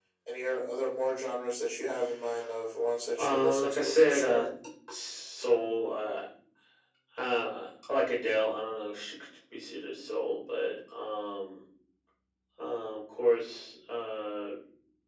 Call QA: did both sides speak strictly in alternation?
No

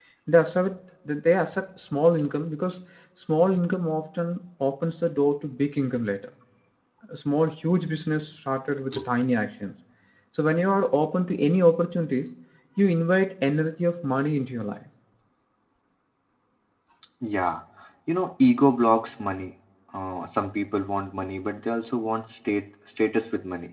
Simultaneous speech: No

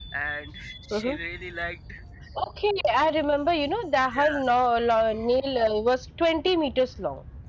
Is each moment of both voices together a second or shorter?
Yes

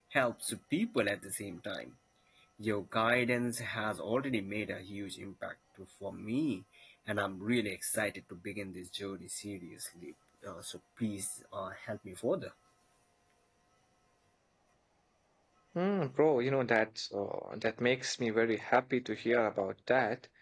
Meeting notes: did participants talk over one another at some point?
No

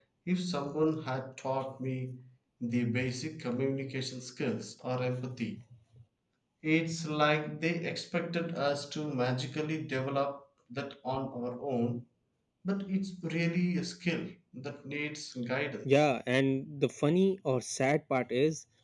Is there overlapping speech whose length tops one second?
No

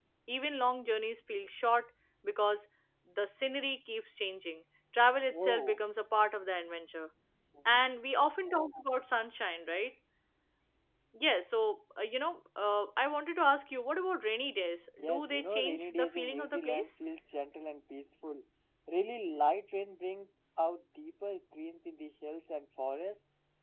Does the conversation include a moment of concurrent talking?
Yes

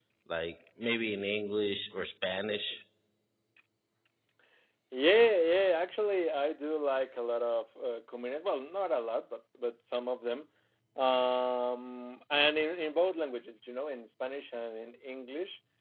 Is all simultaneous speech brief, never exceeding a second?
Yes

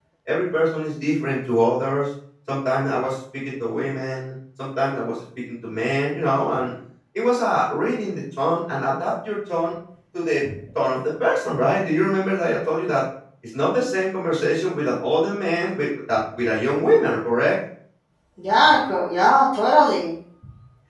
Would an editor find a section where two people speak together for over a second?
No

